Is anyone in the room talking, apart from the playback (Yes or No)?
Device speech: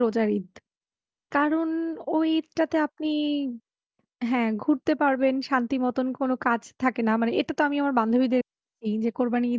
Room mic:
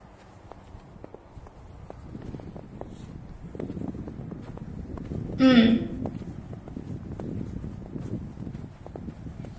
Yes